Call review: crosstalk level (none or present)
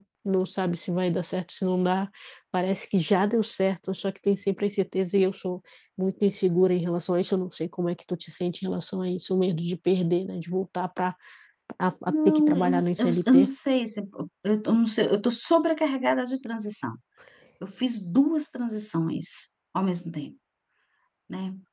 present